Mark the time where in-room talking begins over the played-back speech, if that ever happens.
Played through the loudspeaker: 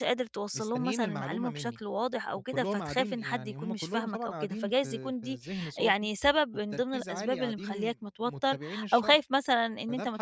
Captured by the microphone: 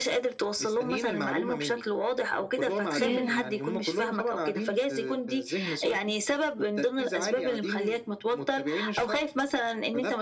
3.0 s

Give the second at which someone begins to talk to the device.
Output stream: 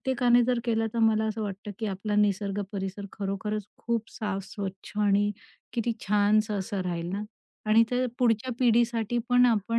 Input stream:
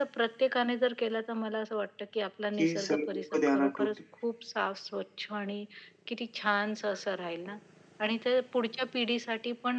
2.6 s

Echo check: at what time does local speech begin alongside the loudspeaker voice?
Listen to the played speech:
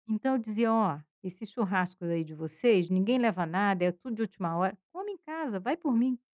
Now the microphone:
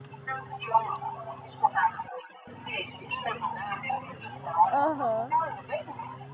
4.7 s

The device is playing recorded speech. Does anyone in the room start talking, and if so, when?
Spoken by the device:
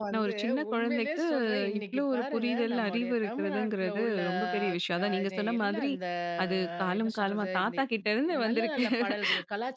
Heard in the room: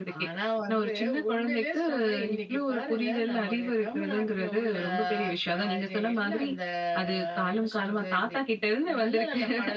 none

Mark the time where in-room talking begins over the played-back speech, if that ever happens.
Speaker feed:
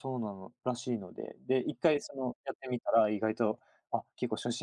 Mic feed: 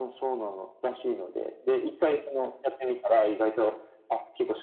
none

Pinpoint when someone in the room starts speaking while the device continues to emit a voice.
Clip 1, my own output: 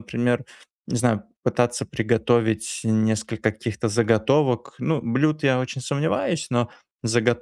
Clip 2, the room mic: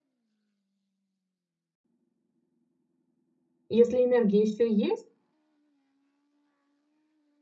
3.7 s

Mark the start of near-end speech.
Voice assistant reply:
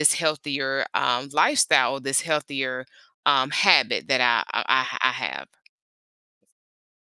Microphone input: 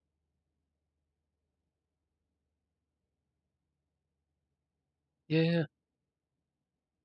5.3 s

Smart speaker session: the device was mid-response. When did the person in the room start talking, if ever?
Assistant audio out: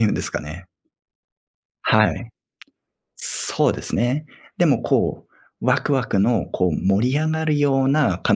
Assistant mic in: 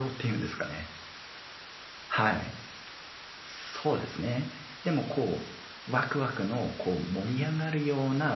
none

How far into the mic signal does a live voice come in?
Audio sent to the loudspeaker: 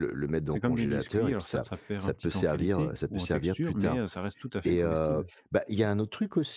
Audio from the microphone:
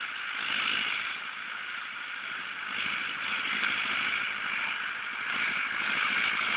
none

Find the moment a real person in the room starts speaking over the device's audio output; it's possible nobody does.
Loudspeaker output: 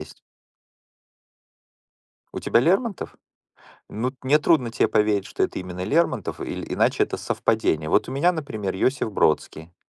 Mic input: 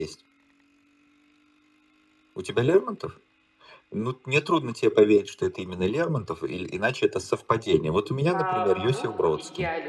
8.2 s

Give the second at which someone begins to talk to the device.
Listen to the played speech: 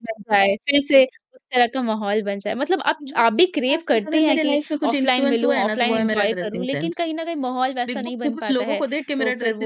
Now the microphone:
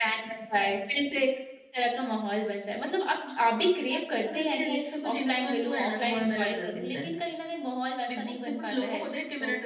none

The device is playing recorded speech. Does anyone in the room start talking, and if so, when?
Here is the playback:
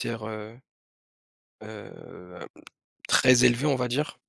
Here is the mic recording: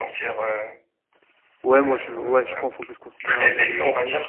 1.6 s

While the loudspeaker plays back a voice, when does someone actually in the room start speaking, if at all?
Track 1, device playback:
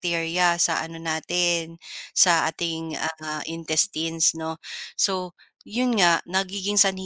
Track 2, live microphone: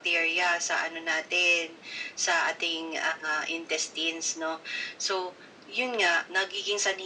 none

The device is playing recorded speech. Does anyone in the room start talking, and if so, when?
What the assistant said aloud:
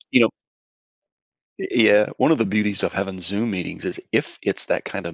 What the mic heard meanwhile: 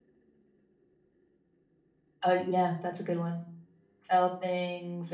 2.2 s

